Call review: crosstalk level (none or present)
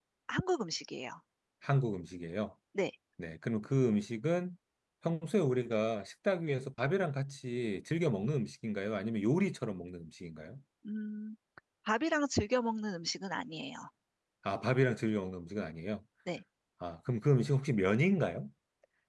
none